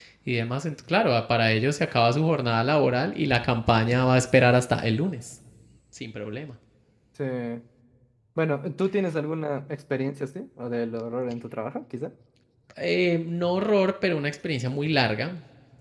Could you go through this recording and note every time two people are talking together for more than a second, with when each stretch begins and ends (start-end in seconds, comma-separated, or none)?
none